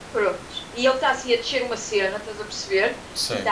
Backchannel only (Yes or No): Yes